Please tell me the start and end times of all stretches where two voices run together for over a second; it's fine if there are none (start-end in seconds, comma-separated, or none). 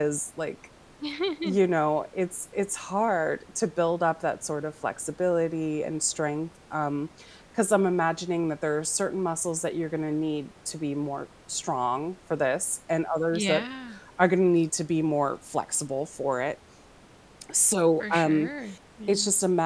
none